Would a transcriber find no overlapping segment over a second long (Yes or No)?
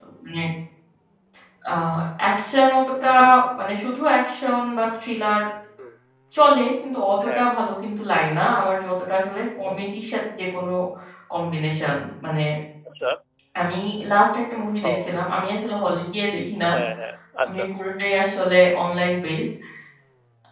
Yes